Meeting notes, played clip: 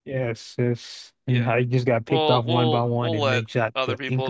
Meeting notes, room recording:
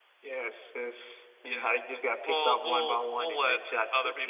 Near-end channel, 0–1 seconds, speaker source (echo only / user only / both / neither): echo only